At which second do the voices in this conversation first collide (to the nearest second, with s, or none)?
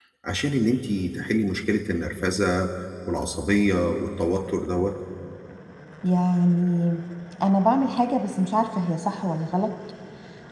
none